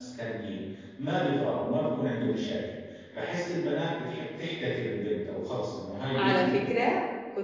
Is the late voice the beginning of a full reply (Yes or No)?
Yes